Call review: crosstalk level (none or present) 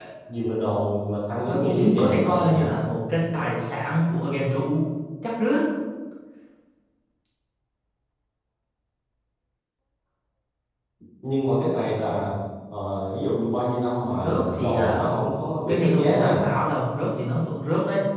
present